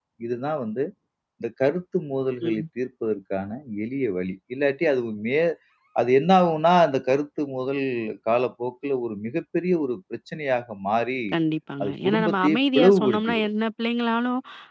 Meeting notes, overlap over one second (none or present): present